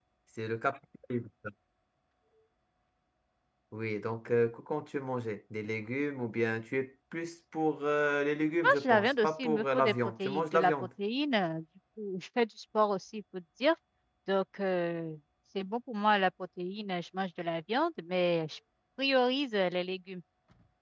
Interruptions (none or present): present